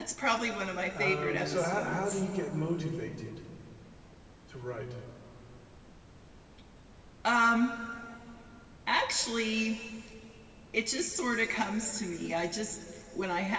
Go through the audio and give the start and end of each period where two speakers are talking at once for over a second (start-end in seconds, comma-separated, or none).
1.0-2.2